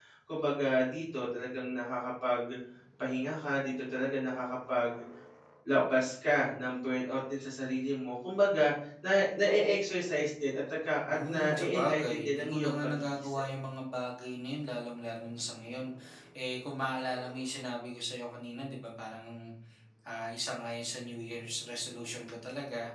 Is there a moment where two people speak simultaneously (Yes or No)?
Yes